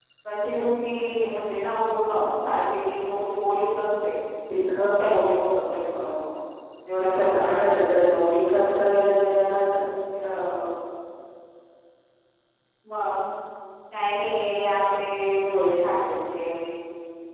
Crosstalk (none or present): present